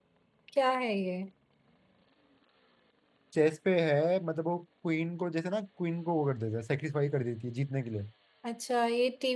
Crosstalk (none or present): none